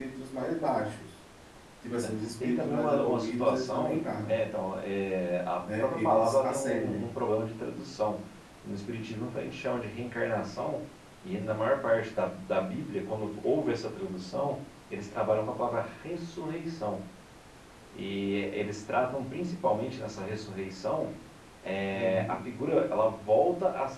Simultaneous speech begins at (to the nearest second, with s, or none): 2 s